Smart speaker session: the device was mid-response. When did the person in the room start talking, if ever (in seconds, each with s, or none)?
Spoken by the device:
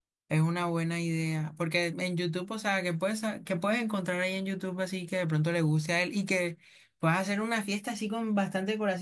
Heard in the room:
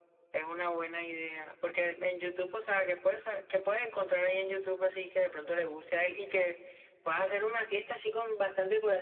none